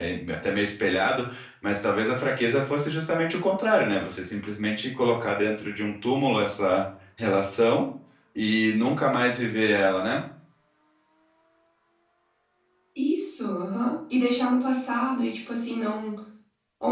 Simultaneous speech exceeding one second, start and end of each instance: none

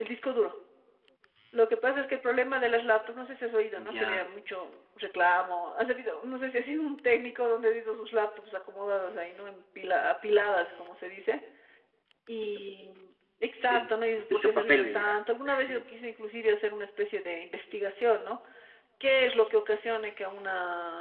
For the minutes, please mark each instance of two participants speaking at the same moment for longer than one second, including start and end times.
13.6-15.2

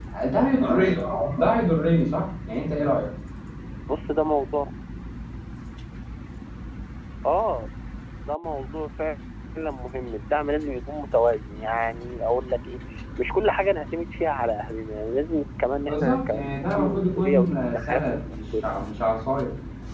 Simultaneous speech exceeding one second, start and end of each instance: 15.9-18.7

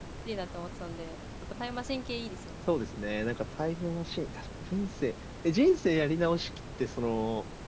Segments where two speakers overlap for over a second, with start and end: none

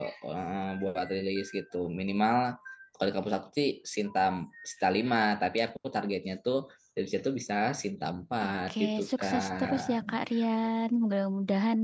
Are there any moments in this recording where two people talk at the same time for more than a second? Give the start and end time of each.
8.4-10.2

